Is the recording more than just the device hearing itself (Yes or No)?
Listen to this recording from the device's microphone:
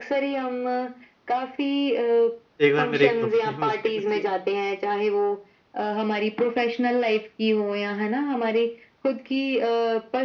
Yes